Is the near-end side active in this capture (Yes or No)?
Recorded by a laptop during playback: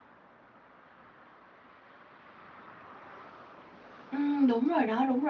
Yes